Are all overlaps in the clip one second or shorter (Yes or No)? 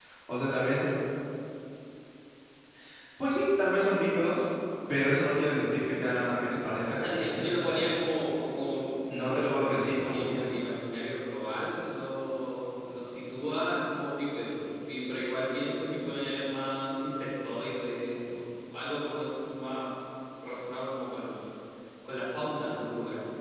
No